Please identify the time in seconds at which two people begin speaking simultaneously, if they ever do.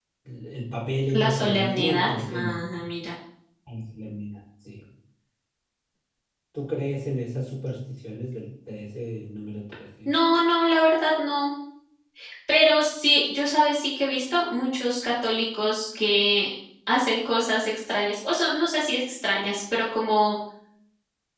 1.1 s

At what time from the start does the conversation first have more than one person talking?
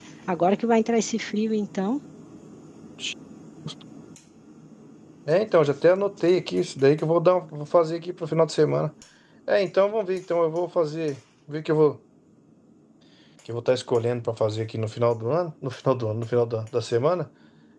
none

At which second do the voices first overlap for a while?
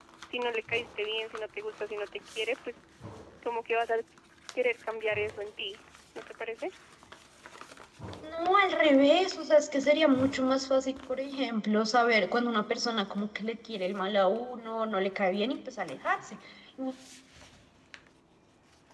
none

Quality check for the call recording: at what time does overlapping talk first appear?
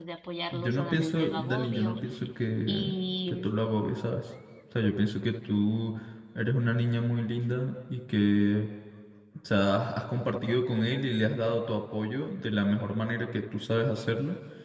0.5 s

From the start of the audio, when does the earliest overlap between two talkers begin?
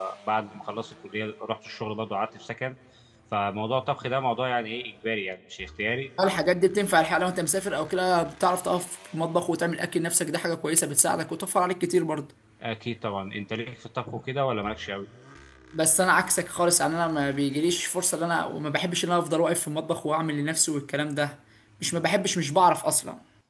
none

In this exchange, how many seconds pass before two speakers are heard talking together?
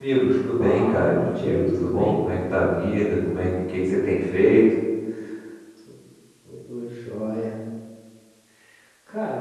0.6 s

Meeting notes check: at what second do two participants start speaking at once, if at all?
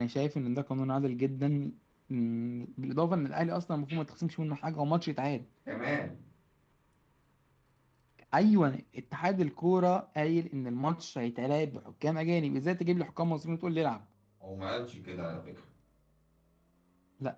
none

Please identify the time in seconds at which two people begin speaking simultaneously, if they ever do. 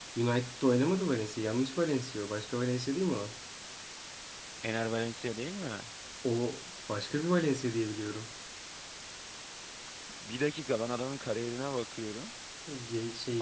none

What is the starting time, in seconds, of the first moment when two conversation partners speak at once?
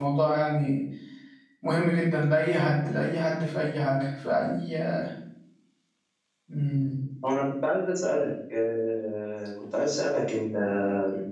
none

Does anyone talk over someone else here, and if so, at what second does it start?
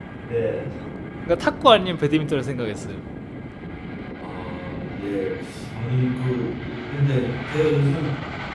none

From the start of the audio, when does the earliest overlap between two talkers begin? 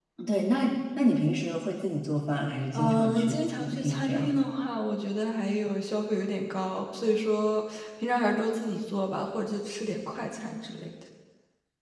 2.7 s

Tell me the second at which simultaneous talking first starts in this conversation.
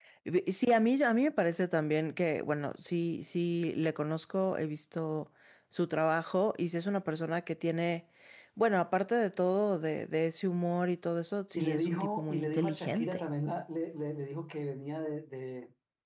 11.5 s

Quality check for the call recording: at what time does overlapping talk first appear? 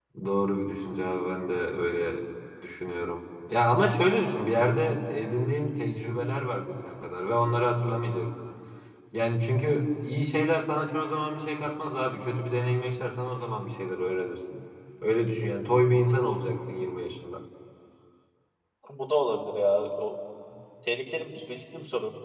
none

